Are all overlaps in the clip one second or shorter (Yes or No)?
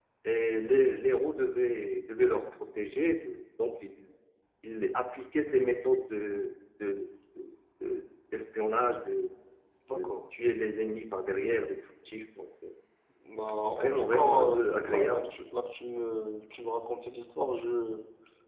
No